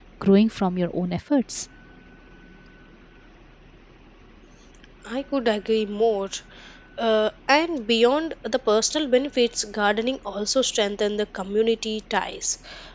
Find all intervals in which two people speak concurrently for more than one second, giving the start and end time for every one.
none

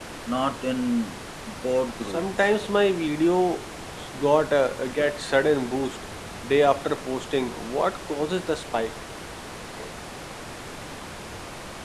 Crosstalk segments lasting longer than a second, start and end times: none

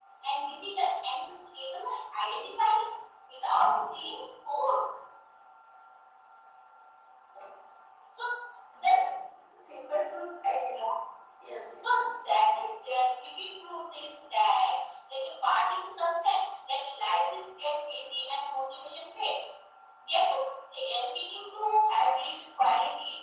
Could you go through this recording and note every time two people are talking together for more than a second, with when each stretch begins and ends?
none

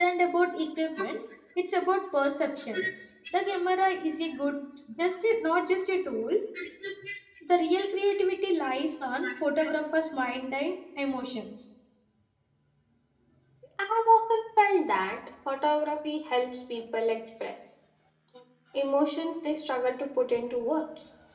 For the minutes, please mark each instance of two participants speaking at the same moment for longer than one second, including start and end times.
none

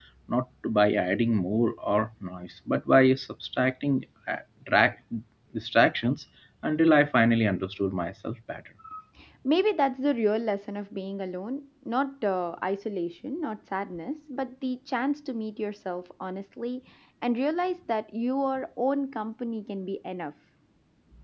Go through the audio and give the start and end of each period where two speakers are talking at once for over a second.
none

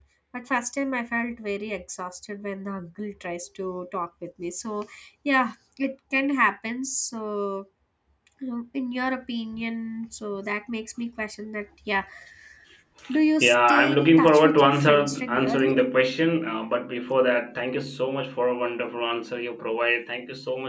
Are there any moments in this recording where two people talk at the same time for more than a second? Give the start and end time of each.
13.4-15.7

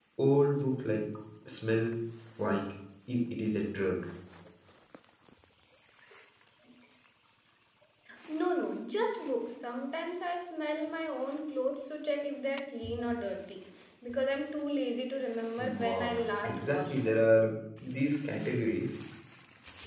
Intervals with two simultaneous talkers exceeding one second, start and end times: 15.6-17.2

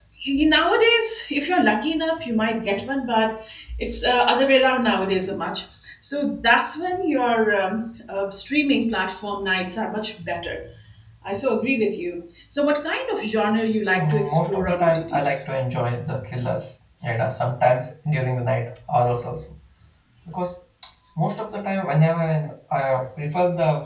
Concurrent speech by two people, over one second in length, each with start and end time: 13.9-15.3

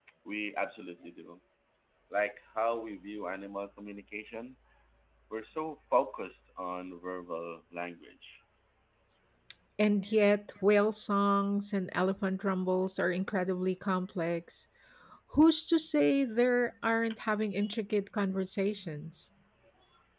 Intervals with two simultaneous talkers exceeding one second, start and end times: none

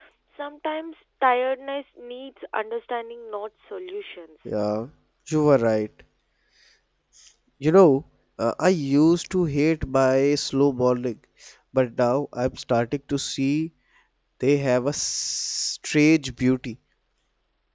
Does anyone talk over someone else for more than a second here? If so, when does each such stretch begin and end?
none

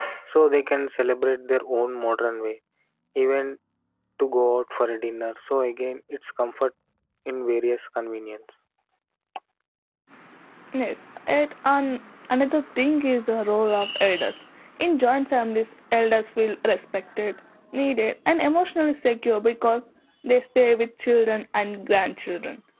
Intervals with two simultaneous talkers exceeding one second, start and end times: none

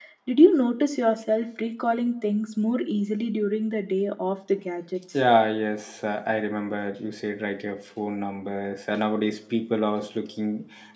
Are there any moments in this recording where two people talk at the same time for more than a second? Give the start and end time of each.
none

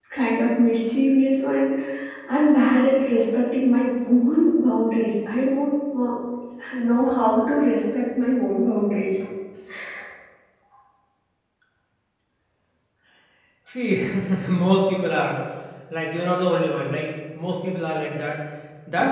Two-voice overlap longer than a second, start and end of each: none

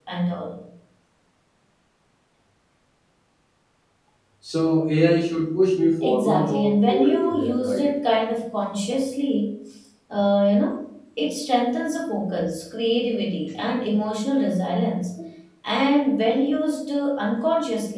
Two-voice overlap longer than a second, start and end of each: 6.0-7.8

